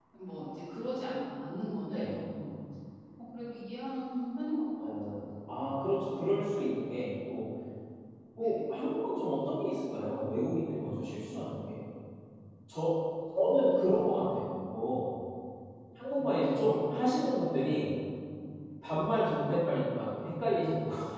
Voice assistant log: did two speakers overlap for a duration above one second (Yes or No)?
No